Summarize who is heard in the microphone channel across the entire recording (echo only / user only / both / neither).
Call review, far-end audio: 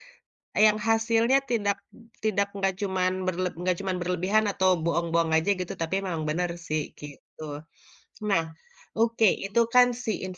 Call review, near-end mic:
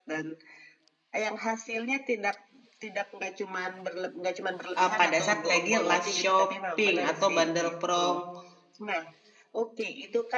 both